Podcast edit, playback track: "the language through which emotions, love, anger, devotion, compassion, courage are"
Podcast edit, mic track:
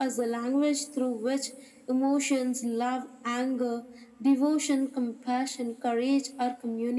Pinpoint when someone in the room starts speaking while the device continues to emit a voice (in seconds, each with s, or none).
none